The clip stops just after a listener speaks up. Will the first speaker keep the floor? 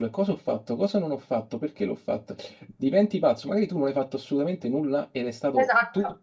Yes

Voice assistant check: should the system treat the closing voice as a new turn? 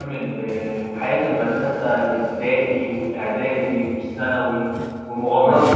No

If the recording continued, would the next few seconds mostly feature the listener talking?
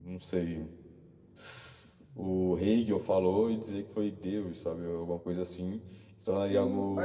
Yes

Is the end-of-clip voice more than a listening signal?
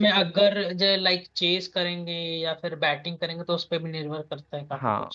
Yes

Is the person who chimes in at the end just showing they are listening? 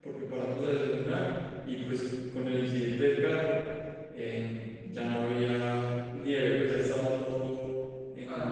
No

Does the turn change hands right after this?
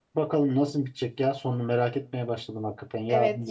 Yes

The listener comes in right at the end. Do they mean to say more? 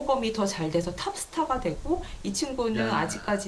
No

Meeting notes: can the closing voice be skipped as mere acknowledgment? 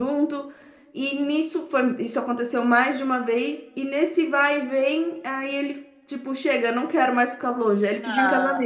No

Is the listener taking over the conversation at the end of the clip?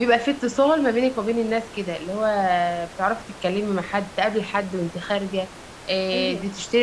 No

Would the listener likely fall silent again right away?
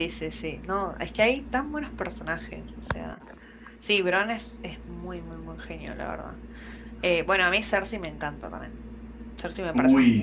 No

